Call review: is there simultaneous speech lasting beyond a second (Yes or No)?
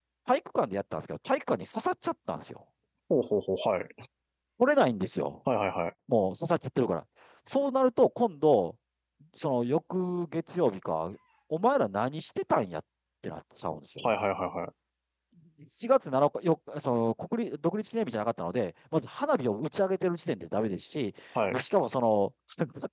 No